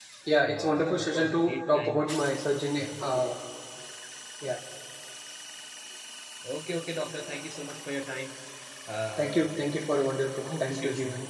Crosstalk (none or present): present